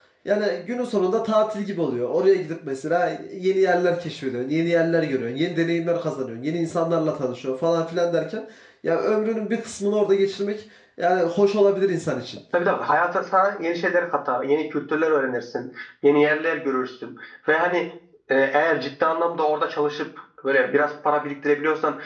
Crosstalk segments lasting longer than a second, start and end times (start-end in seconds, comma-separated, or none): none